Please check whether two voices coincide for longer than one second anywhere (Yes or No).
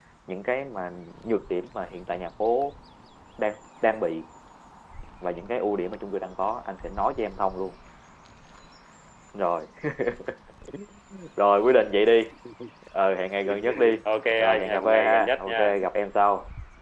Yes